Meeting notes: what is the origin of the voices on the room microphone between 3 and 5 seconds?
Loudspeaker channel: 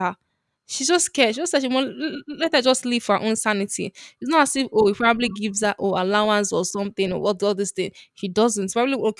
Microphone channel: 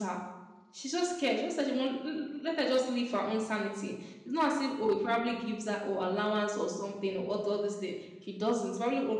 echo only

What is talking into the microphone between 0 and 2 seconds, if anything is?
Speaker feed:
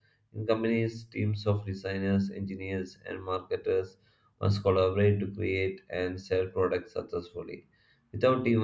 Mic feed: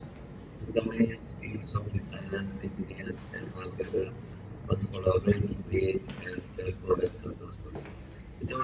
echo only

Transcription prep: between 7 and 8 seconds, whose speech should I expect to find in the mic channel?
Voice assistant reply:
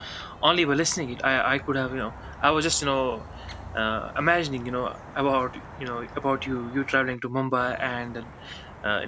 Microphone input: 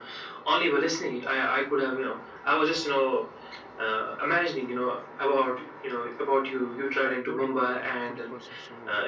both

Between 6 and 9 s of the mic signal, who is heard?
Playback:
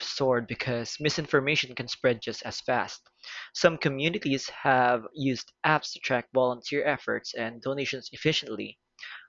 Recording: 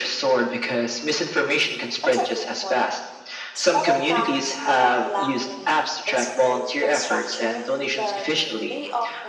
both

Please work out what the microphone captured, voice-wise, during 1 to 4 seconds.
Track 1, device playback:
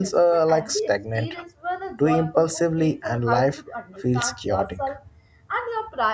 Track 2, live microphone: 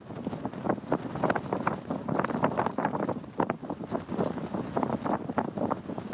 neither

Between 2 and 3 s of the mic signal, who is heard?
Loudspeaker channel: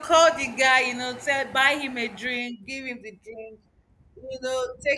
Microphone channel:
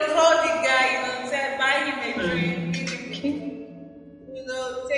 both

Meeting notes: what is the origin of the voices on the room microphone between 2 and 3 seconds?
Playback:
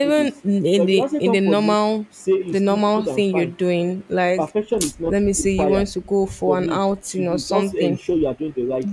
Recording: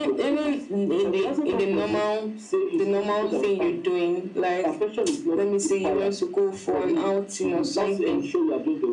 echo only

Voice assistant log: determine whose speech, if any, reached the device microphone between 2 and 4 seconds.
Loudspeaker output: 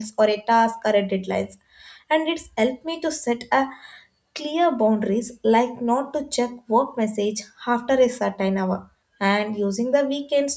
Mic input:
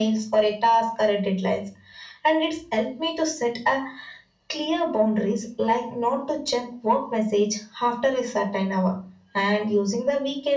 echo only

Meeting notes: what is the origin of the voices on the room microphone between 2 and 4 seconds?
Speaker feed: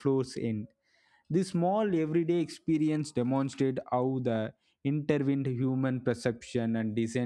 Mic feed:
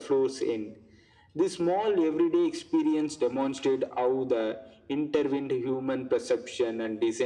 echo only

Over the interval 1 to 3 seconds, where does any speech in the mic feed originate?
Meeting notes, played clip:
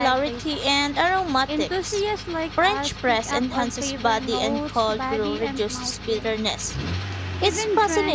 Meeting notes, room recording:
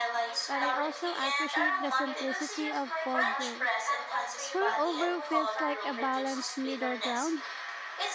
both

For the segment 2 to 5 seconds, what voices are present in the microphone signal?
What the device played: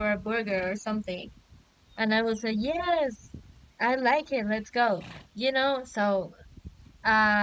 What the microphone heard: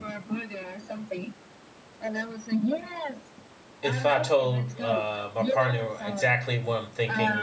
both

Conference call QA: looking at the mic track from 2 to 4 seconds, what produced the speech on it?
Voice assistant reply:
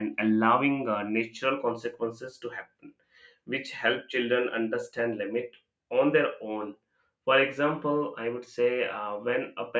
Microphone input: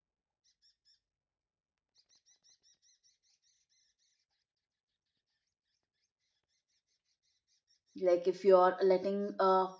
neither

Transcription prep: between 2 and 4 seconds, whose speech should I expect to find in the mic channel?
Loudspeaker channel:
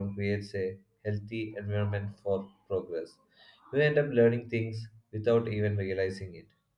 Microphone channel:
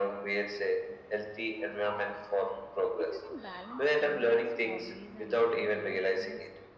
both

